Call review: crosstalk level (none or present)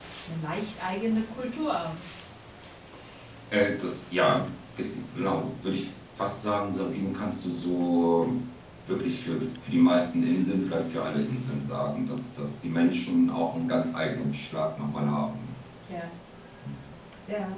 none